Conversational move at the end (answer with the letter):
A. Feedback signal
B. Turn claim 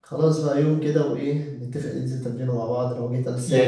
B